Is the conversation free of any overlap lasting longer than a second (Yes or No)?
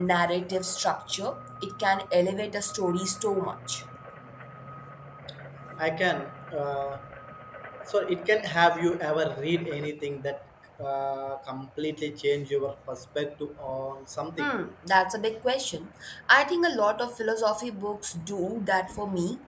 Yes